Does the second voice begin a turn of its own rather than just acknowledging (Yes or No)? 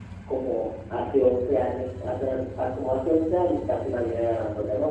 Yes